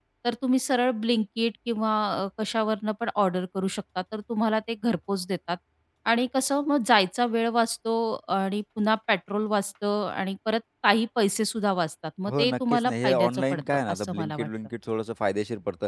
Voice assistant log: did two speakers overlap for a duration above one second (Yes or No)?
Yes